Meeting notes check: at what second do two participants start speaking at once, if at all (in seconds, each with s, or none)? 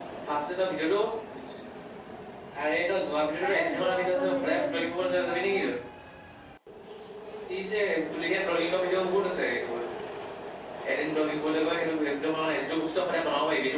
3.5 s